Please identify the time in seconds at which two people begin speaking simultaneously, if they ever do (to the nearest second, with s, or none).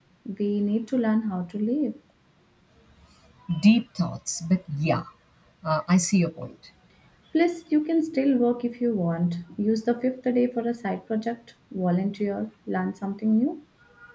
none